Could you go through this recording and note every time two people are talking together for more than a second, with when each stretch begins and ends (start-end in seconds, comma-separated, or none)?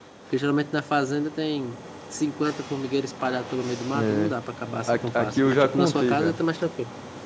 4.9-6.4